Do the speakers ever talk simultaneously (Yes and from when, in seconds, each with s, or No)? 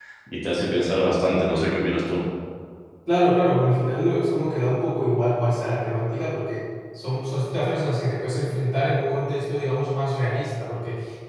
No